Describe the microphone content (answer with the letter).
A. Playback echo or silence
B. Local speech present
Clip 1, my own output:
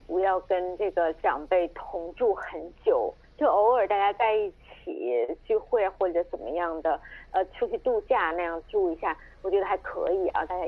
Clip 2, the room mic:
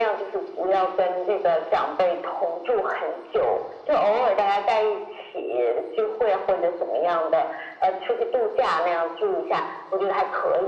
A